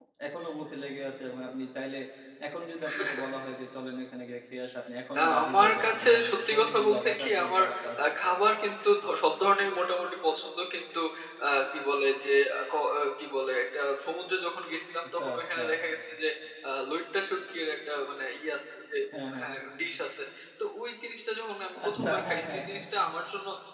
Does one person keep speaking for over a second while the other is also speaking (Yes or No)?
Yes